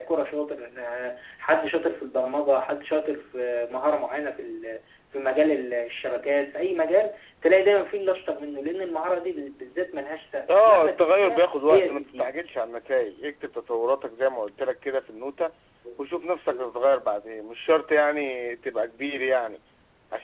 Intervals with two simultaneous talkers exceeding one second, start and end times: 10.6-12.4

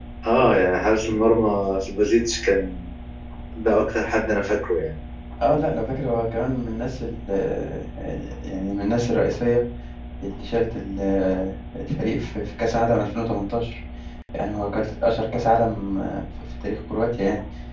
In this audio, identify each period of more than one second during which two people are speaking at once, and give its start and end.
none

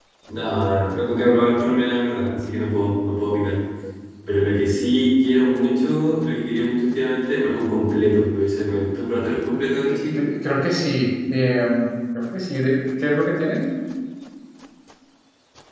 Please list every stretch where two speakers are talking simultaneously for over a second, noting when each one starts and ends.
none

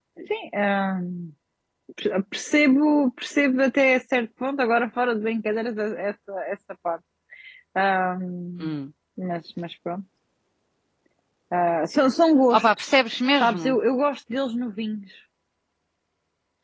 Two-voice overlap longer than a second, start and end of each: 12.5-13.8

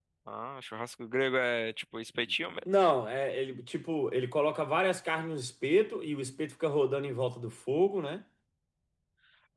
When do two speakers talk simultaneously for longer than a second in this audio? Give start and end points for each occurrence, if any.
none

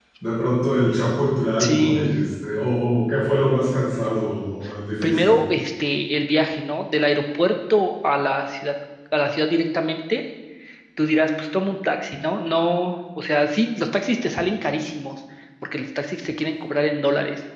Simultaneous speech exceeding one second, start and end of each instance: none

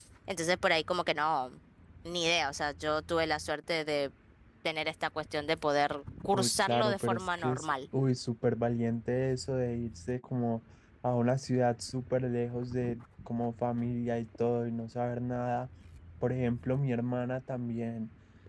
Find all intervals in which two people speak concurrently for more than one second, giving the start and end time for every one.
6.3-7.7

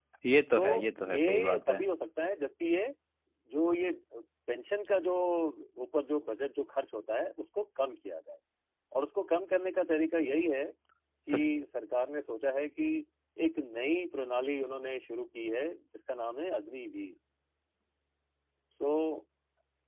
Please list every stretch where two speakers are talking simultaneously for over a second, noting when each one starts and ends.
0.6-1.8

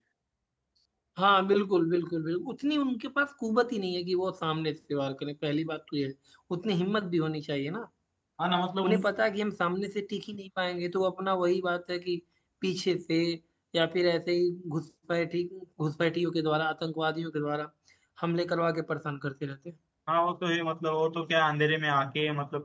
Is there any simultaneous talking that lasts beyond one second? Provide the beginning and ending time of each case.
none

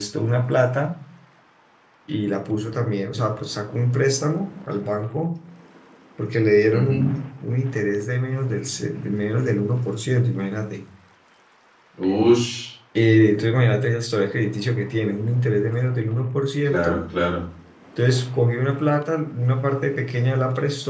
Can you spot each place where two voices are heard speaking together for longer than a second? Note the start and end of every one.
none

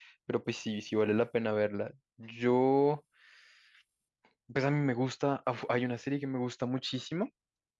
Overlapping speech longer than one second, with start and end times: none

